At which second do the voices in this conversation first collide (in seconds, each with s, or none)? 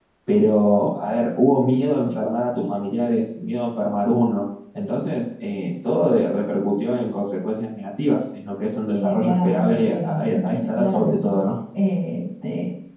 8.9 s